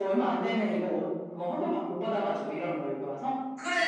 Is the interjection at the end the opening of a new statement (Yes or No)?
Yes